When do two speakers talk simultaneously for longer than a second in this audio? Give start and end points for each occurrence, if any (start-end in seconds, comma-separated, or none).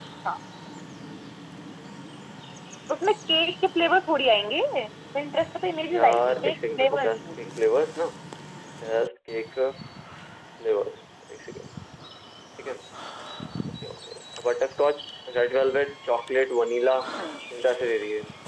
5.9-7.3